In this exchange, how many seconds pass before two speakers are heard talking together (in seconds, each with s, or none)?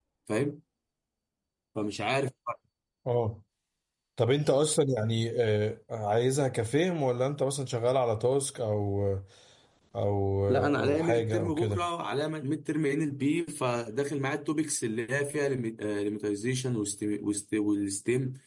10.5 s